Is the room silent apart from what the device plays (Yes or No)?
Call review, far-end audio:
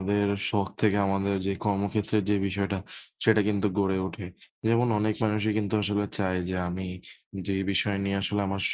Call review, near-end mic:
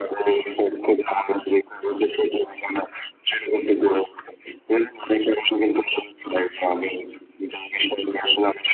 Yes